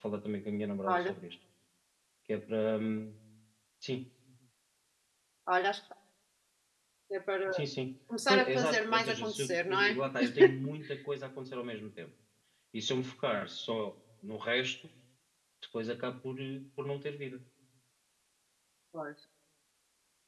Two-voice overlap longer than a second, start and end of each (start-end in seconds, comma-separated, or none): 8.3-10.0